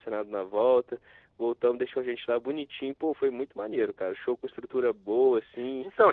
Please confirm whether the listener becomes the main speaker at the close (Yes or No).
Yes